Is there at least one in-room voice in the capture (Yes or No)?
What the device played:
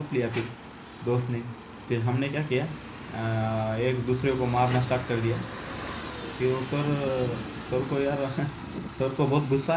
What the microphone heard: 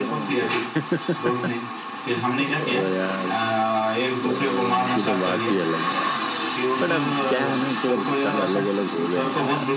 Yes